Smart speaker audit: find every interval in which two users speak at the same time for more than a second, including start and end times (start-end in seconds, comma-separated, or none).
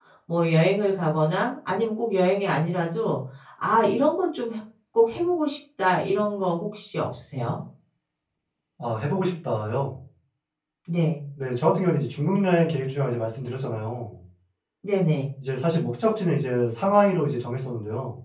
none